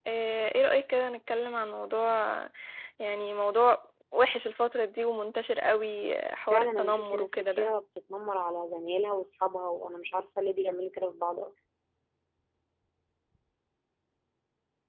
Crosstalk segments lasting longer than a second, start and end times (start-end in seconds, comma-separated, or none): 6.5-7.7